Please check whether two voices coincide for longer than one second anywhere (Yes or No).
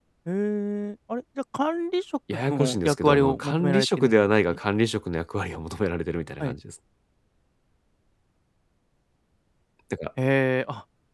Yes